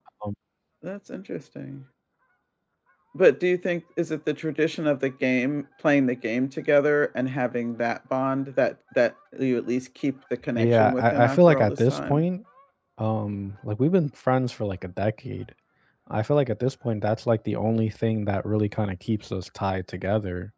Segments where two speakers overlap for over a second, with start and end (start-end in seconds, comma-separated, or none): 10.5-12.2